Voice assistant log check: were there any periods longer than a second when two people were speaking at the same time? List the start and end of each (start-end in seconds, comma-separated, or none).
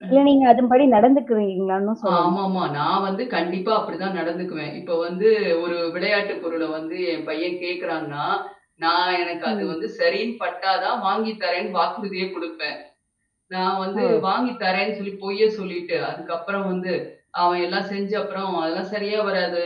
none